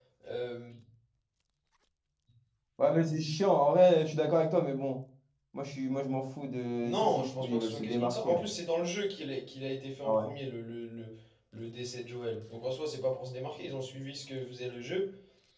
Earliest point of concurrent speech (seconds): 7 s

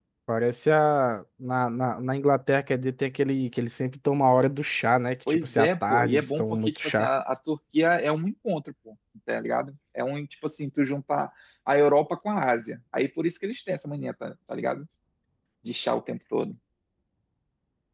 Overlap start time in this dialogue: 5 s

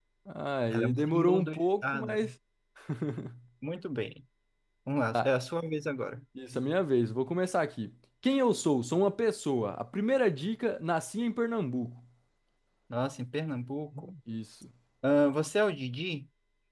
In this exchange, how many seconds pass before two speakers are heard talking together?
1 s

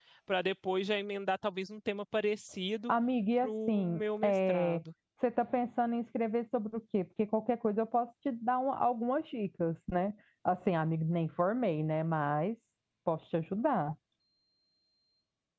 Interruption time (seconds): 3 s

